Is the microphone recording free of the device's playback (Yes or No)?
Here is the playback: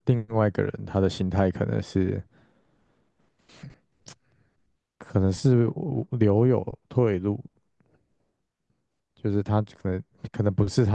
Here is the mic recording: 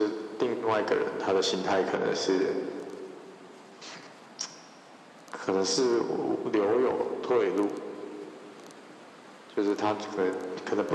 No